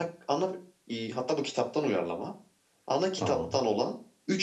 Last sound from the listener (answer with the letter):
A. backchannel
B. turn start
A